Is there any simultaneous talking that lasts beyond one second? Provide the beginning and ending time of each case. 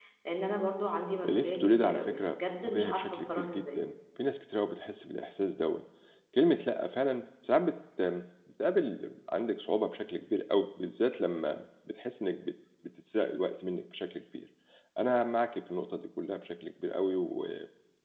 1.3-3.8

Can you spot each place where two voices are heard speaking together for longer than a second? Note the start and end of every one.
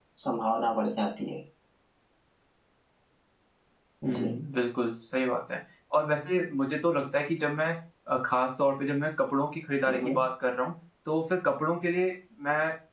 none

